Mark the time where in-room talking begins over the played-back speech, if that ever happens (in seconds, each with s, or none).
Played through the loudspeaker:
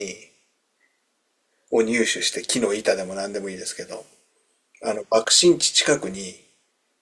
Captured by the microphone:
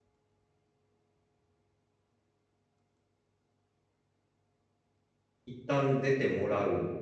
5.5 s